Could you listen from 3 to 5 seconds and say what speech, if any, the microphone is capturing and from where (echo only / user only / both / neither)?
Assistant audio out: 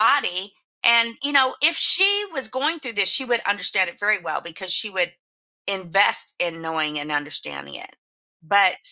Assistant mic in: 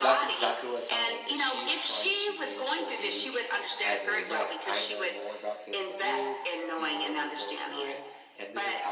both